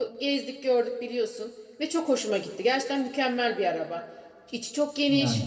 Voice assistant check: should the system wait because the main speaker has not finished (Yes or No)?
Yes